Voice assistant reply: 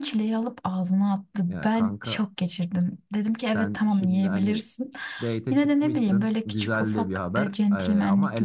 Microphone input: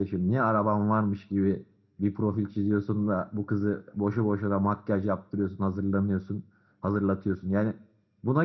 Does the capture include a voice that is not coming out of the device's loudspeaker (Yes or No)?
Yes